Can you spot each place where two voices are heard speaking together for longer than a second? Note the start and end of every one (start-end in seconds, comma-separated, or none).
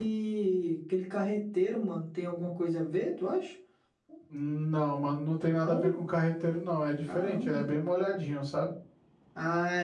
none